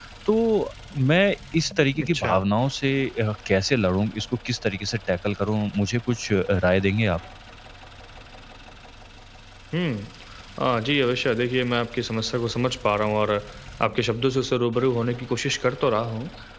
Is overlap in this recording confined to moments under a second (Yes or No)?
Yes